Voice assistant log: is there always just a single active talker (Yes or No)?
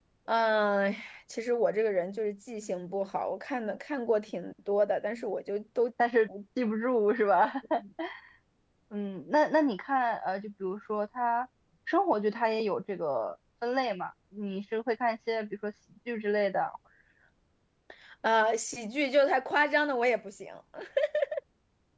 Yes